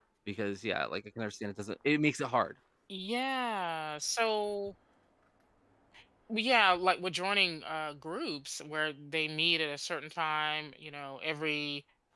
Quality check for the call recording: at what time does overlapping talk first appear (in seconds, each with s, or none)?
none